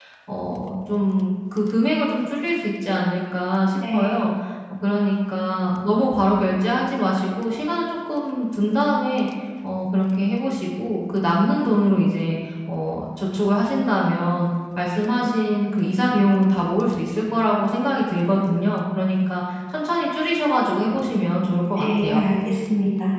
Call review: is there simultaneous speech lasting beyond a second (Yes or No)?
No